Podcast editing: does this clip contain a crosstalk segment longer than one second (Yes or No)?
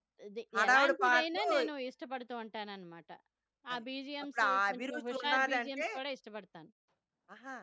Yes